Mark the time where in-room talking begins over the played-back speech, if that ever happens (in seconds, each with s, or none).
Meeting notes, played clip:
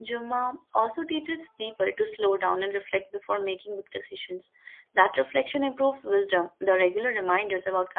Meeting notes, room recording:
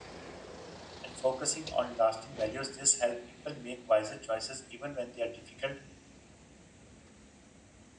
1.0 s